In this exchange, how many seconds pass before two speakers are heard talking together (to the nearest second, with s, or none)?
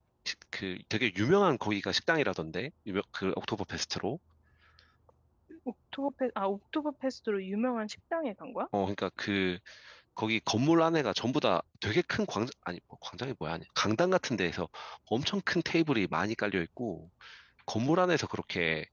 none